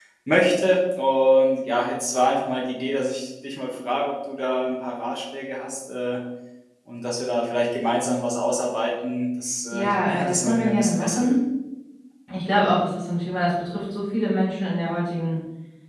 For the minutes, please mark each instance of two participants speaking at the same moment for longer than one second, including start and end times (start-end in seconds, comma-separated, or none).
9.7-11.4